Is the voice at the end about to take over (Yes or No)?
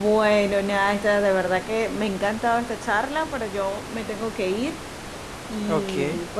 No